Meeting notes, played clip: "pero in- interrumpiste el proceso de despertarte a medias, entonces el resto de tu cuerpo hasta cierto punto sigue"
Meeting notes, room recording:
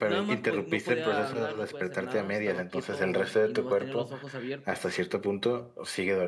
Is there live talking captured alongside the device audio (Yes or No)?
Yes